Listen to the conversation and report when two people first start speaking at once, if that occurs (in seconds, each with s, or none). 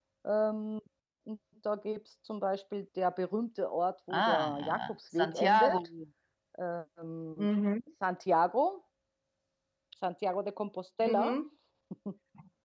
4.1 s